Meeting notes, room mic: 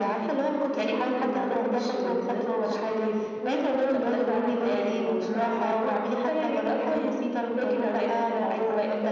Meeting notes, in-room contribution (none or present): none